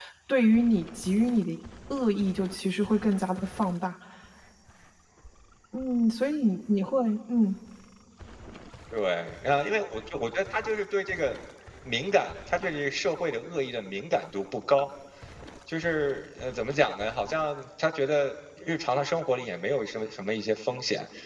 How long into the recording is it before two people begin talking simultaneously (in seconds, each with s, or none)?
none